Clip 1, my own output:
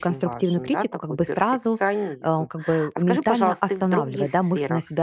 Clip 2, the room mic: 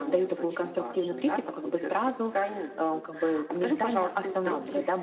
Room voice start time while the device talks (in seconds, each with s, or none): none